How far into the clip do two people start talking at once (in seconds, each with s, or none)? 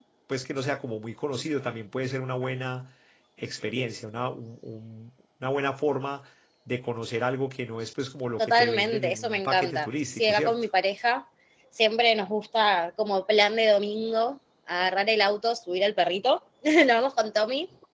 8.4 s